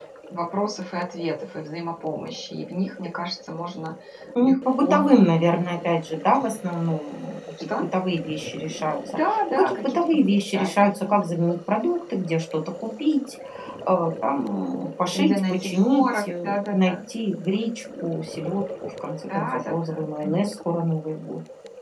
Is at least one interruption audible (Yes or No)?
Yes